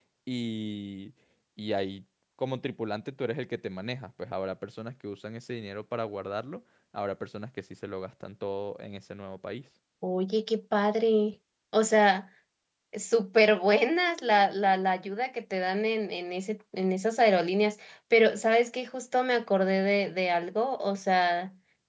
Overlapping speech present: No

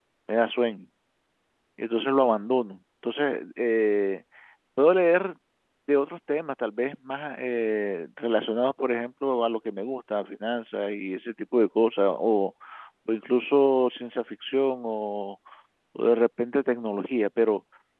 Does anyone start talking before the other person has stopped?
No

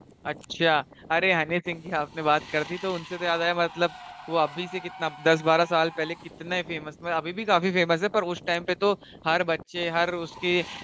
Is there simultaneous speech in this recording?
No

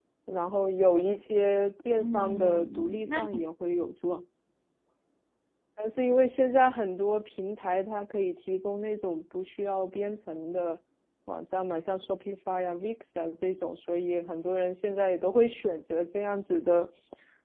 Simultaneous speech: Yes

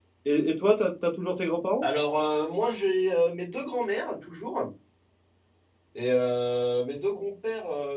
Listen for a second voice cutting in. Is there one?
No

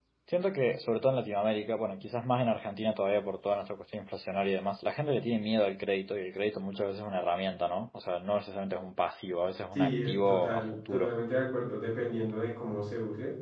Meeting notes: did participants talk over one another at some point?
Yes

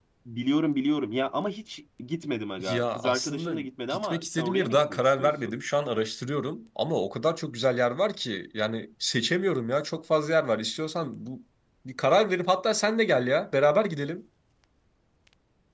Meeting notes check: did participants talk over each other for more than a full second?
Yes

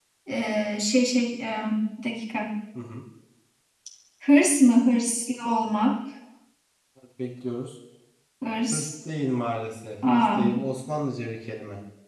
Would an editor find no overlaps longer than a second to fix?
Yes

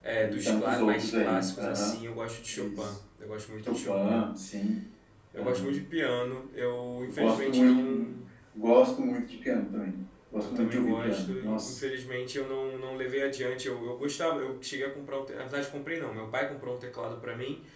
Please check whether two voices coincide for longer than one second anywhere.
Yes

